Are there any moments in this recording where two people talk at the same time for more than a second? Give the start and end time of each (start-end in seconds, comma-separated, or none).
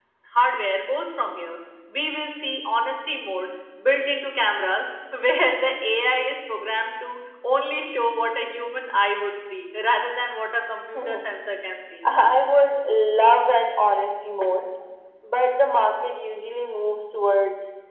none